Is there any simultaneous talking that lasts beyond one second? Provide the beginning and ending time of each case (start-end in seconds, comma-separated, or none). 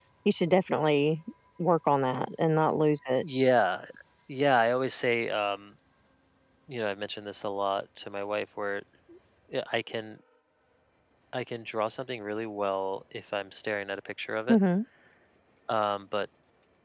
none